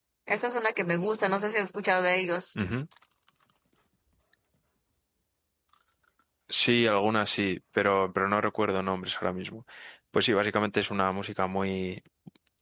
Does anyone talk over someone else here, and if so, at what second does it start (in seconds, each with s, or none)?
none